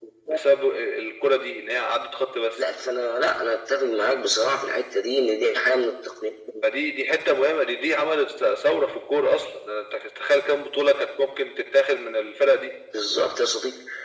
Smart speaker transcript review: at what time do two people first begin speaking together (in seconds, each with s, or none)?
none